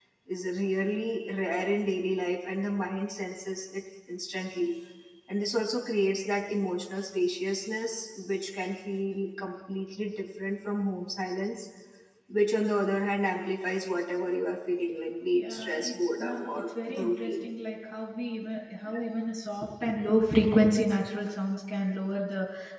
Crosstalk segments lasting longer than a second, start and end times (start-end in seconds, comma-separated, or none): 15.4-17.5